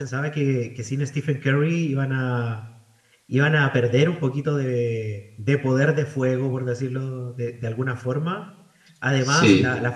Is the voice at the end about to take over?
No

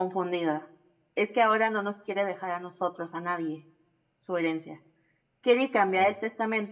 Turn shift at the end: No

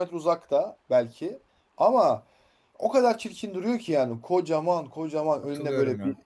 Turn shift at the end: No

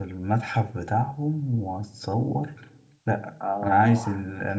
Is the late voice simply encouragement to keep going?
Yes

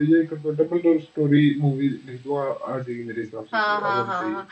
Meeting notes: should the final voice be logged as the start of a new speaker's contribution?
Yes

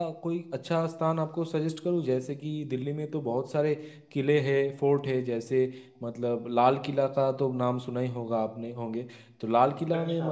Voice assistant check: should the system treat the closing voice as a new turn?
No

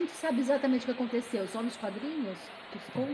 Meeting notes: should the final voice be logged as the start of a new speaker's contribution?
Yes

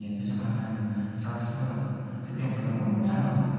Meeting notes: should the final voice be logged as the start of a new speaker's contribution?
No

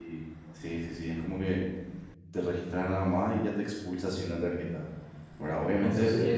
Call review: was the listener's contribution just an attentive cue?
No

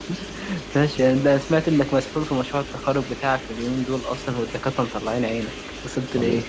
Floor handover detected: Yes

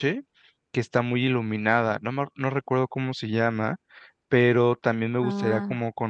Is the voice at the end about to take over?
No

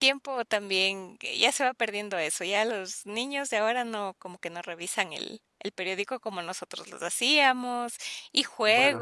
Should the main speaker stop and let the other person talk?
Yes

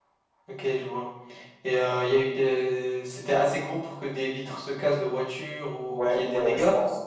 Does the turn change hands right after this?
Yes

